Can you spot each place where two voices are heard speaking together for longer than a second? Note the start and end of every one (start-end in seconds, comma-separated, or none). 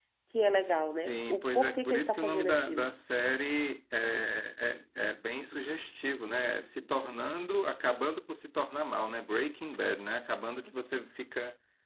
0.9-2.9